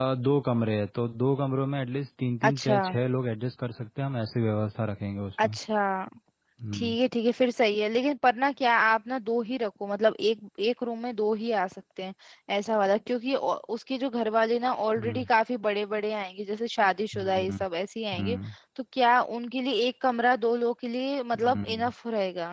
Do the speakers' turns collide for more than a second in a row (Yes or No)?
No